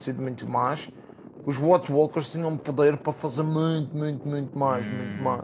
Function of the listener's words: taking over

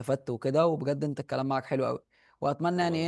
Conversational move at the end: listening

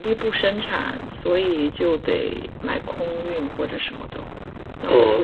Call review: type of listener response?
taking over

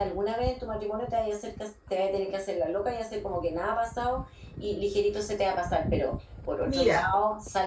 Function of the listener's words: listening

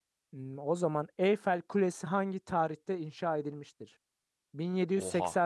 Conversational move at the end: listening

